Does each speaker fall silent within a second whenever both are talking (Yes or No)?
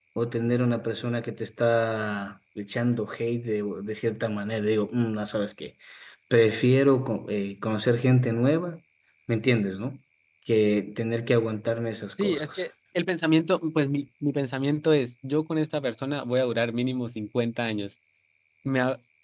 Yes